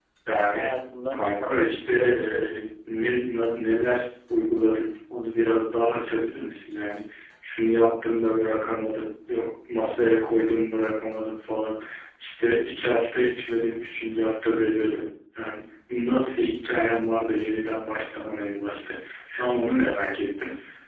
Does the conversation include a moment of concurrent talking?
Yes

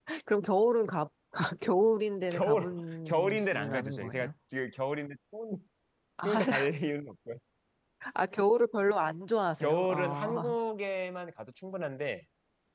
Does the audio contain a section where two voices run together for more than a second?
Yes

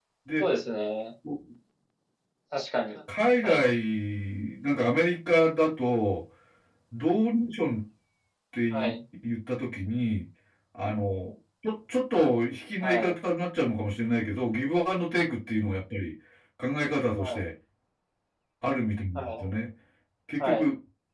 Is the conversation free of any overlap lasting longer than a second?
Yes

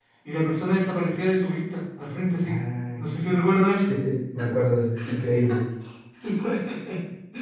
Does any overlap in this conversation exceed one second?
No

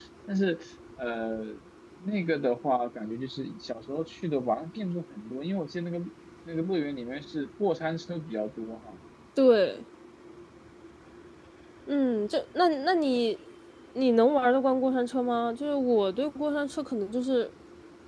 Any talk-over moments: No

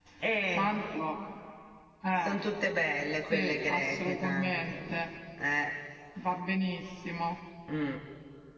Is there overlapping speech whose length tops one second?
Yes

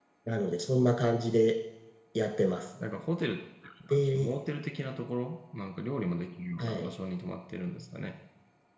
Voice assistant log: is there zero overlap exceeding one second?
Yes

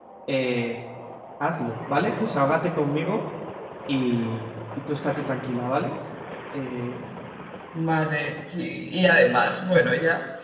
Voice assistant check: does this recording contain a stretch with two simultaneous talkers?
No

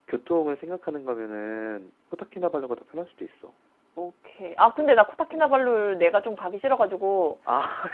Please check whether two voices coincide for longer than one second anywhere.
No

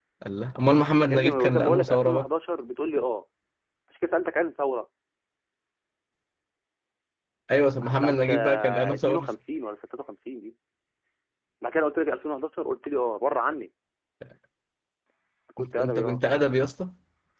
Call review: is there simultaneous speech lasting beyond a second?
Yes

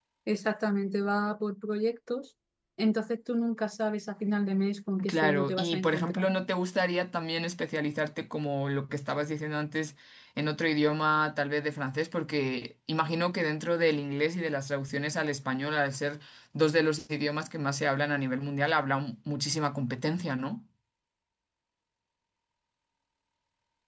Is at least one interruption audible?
Yes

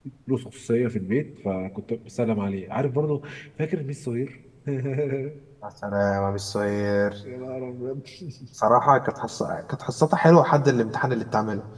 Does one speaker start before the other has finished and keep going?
No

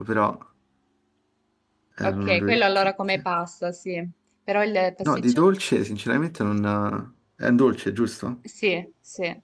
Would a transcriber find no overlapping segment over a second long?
No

